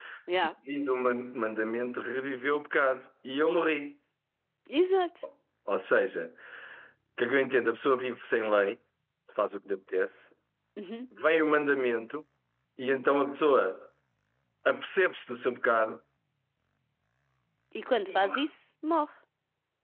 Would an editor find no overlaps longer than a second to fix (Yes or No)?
Yes